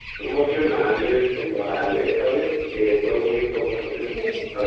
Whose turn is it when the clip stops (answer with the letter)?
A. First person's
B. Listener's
A